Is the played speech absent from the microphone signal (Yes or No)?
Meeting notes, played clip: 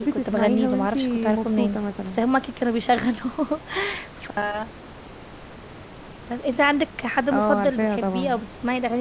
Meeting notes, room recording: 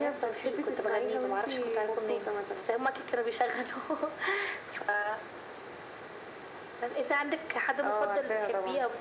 No